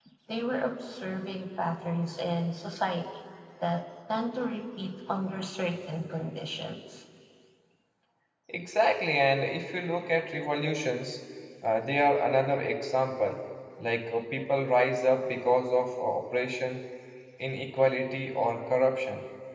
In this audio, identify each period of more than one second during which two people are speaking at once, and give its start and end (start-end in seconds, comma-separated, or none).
none